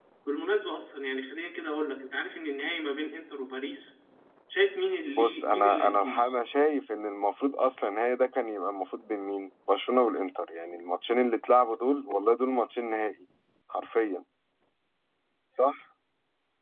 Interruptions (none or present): present